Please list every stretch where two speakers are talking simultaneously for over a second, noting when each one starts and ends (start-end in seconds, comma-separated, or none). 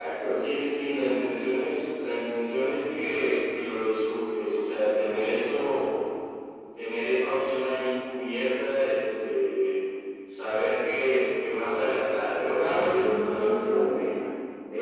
12.6-14.1